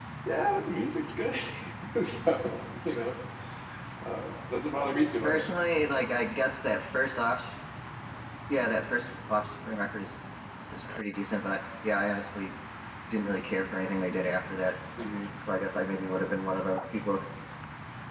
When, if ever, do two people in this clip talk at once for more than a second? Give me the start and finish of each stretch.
none

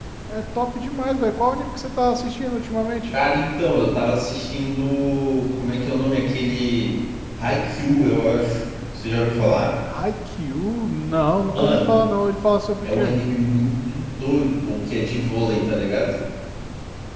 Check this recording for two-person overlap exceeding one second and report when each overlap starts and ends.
none

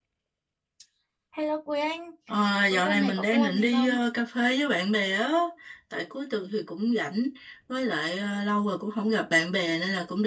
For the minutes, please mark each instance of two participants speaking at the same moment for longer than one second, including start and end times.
2.7-3.9

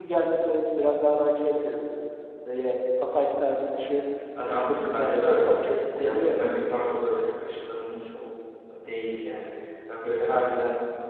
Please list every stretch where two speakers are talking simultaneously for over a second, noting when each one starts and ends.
4.7-6.5

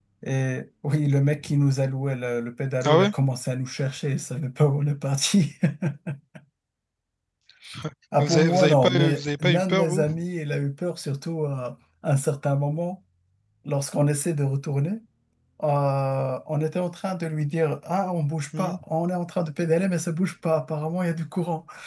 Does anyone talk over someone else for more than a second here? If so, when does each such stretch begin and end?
8.2-10.1

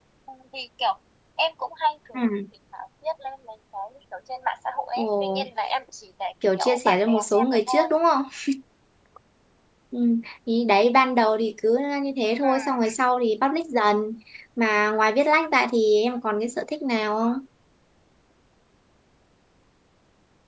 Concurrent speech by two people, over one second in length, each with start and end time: 6.5-7.9

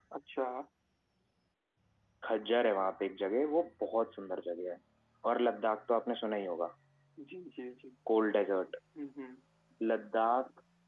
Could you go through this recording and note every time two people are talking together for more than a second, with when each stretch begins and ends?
none

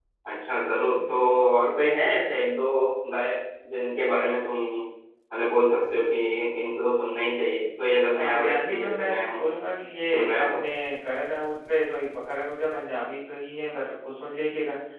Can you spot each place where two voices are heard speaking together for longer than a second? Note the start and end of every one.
8.1-9.5

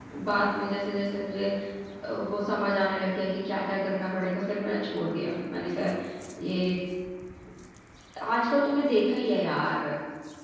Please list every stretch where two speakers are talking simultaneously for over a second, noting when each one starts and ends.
none

